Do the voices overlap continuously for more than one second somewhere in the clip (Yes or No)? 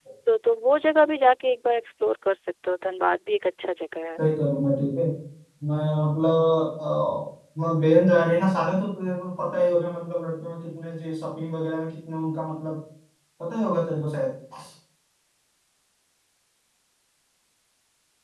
No